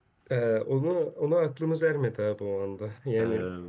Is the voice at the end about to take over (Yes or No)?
No